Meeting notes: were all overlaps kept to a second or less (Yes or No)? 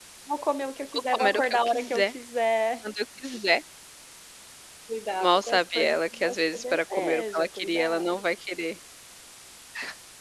No